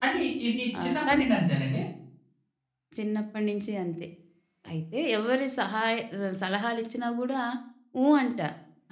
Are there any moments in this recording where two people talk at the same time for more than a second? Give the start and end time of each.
none

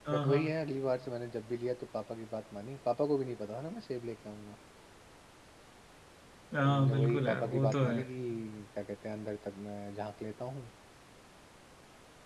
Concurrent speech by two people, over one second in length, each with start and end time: 6.6-8.0

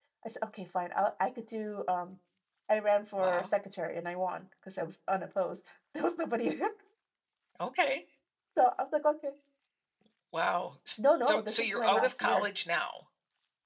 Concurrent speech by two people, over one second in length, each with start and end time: 11.3-12.5

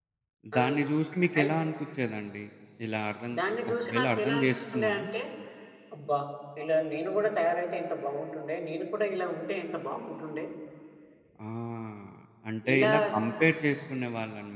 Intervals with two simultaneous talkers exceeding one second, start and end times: 3.7-4.9

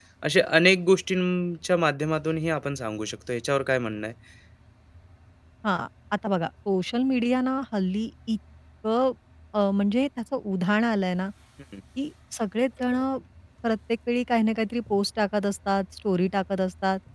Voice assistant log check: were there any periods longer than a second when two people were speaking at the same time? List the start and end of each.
none

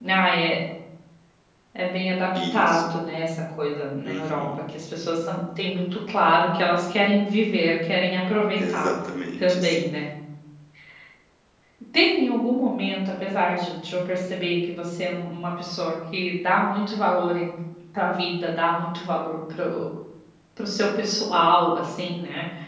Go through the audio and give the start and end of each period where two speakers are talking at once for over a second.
none

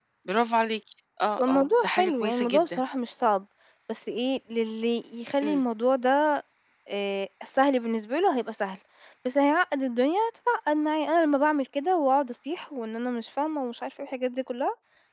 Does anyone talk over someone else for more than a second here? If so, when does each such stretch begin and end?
1.4-2.8

